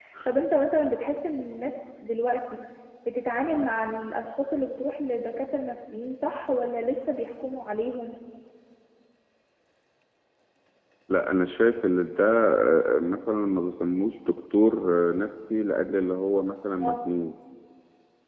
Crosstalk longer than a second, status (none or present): none